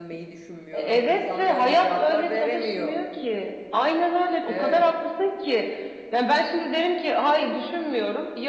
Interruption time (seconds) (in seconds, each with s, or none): 0.7 s